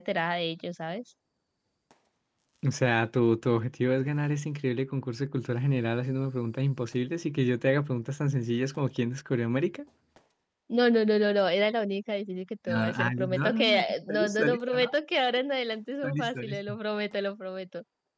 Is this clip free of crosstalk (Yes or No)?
No